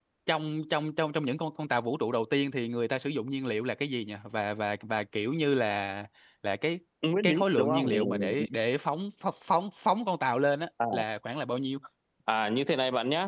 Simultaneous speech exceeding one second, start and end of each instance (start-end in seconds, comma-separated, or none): 7.2-8.4